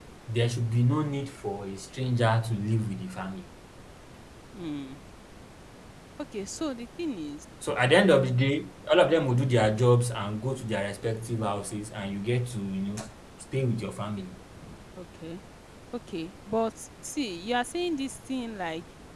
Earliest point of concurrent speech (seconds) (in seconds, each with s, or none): none